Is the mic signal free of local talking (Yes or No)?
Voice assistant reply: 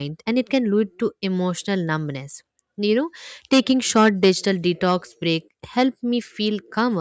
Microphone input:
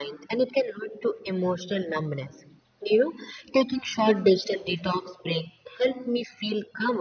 Yes